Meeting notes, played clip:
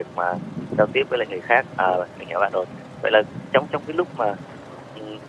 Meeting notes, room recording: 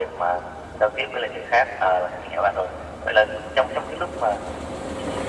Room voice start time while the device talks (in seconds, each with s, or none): none